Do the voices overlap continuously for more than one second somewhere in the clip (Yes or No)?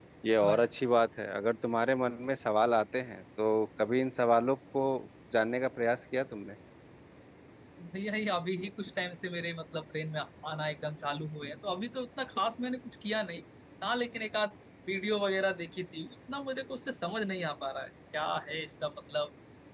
No